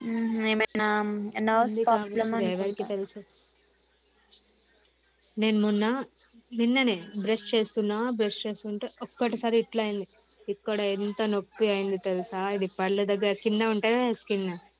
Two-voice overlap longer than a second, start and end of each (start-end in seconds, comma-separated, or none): 1.6-2.9